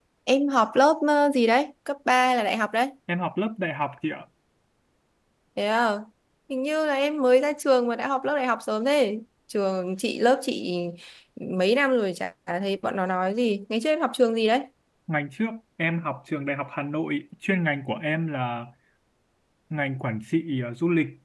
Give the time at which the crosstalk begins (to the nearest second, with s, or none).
none